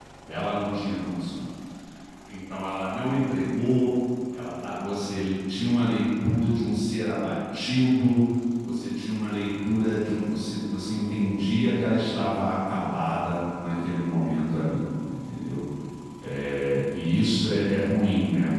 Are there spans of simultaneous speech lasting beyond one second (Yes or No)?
No